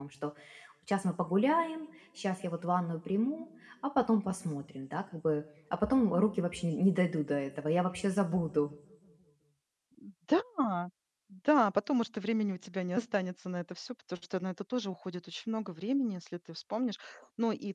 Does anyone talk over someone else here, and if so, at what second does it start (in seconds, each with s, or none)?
none